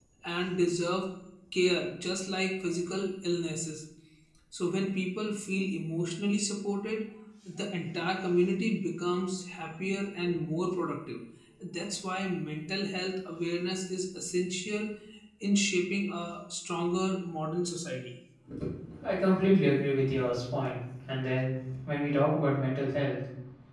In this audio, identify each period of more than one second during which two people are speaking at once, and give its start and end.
none

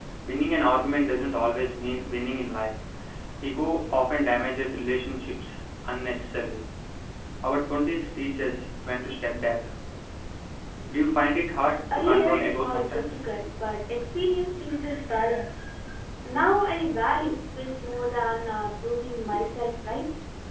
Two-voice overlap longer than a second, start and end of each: 11.9-13.2

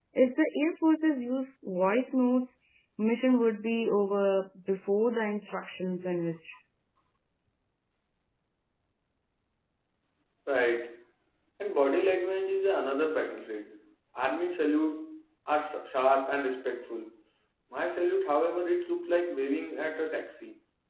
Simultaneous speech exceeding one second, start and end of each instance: none

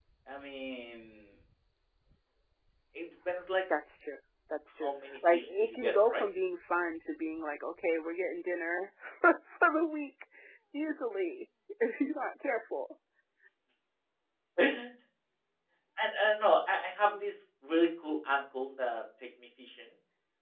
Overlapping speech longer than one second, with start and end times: 4.8-6.2

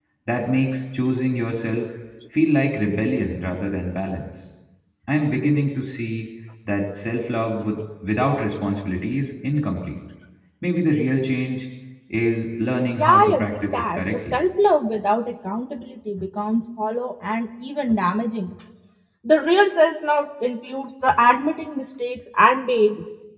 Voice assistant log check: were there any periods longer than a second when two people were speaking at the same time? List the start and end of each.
12.9-14.4

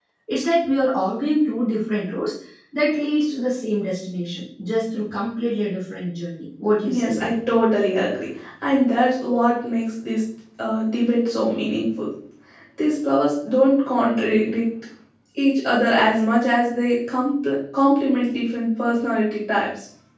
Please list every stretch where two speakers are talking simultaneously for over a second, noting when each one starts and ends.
none

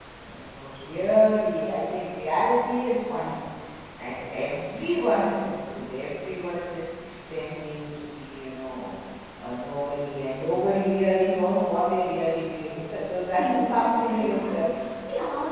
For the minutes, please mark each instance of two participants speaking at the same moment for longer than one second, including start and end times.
13.4-14.6

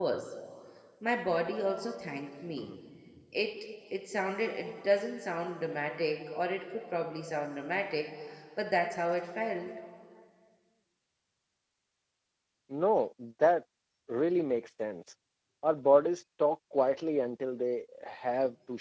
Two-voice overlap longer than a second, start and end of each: none

